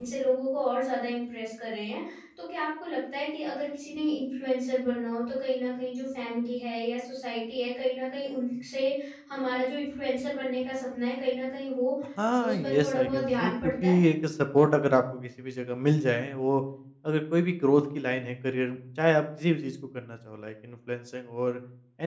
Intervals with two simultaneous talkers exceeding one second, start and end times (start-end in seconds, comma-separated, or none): 12.5-14.0